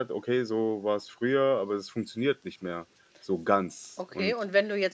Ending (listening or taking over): taking over